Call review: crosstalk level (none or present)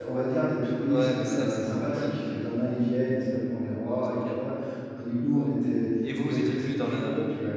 present